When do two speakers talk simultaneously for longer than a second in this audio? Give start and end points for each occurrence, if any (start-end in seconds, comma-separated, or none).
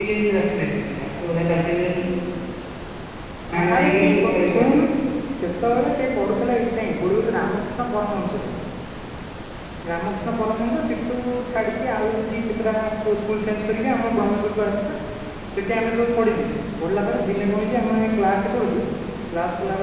3.5-4.8